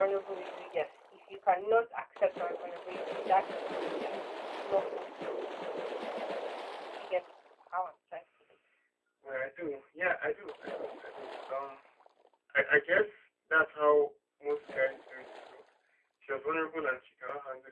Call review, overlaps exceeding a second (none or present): none